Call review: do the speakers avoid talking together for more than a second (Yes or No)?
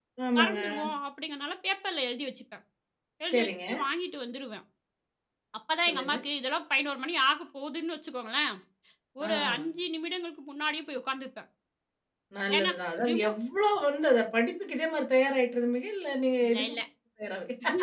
Yes